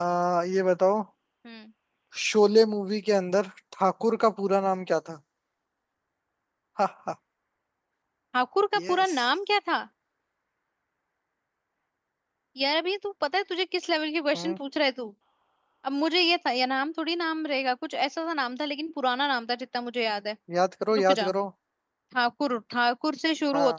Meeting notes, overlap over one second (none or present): none